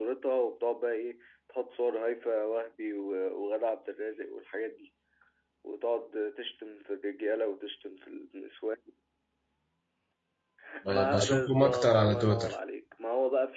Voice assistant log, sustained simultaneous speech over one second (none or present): present